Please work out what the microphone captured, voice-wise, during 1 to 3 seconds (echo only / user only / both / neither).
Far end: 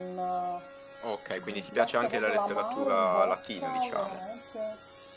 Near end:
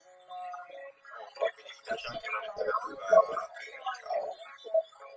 echo only